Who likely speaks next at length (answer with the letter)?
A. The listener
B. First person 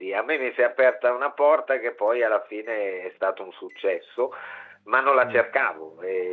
B